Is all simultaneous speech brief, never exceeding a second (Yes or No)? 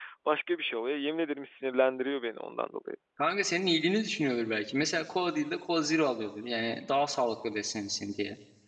Yes